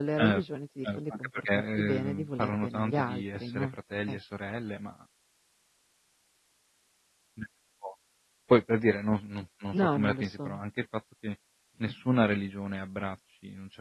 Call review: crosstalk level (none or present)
present